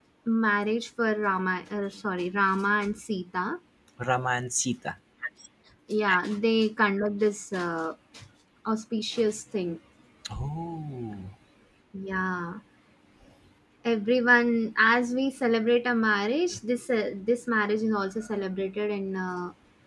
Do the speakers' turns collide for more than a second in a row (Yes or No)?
No